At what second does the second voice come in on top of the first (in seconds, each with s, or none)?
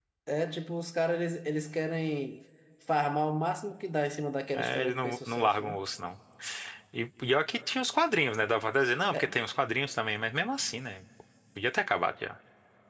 4.5 s